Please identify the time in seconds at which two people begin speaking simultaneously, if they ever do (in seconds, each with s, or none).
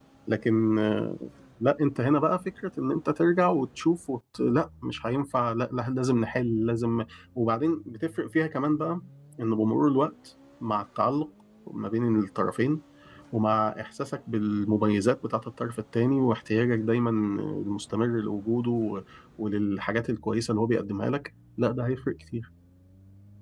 none